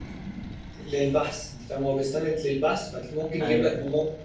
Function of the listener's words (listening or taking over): listening